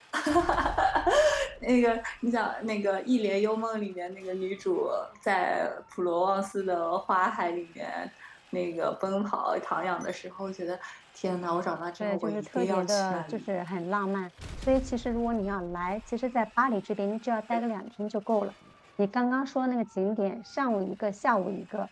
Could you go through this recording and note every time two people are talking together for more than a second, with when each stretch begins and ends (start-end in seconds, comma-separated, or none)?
12.0-13.4